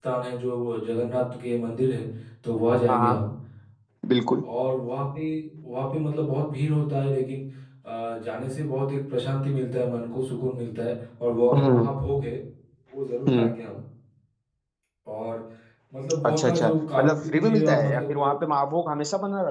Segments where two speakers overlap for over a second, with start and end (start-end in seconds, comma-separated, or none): 16.2-18.3